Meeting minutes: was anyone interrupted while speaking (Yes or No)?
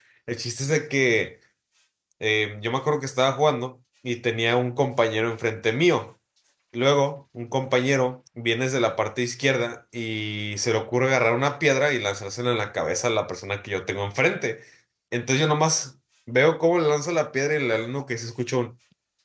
No